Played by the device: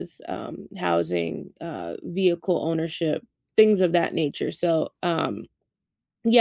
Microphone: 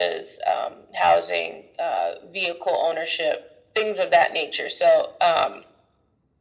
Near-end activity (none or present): none